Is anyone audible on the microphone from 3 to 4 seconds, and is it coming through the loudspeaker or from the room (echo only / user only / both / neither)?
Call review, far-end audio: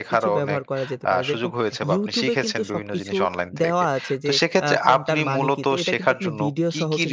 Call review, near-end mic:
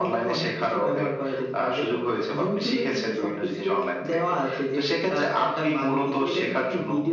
echo only